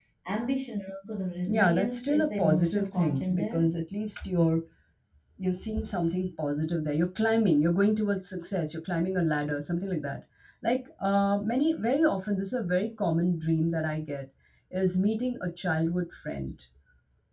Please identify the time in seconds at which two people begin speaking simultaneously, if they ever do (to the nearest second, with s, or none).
1 s